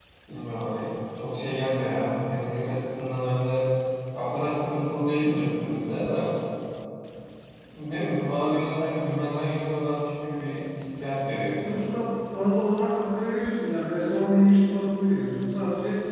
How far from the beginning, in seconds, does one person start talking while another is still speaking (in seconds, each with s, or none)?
none